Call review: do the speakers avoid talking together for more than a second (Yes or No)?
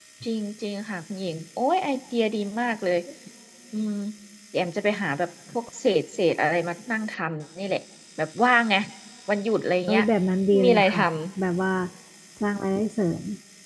Yes